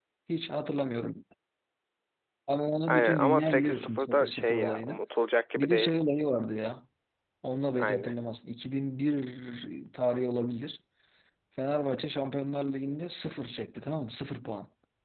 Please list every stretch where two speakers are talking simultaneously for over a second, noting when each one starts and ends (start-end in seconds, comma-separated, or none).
2.9-5.0